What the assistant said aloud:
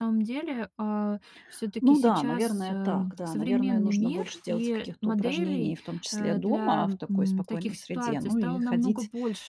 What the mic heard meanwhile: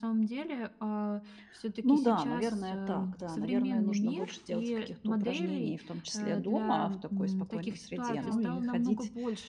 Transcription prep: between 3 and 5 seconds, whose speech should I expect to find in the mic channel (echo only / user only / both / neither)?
echo only